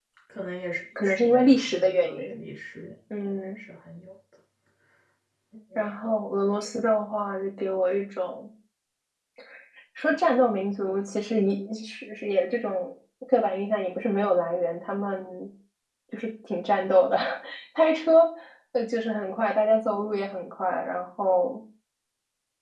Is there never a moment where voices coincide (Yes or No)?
No